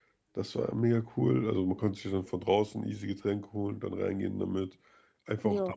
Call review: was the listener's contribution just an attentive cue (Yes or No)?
Yes